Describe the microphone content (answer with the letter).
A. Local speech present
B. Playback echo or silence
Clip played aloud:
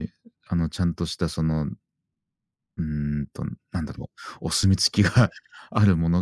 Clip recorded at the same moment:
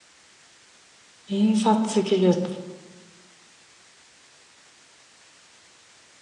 A